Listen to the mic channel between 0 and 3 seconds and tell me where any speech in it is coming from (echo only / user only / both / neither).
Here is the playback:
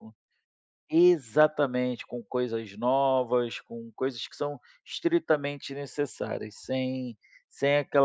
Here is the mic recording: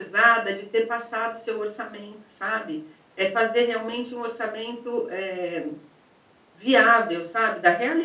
user only